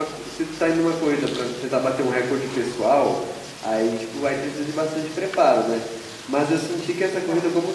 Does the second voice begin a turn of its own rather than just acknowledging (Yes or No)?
No